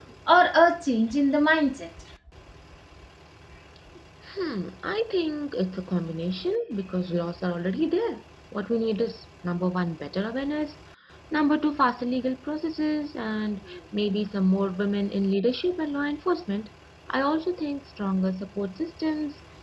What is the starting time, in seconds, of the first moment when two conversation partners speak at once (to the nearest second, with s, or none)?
none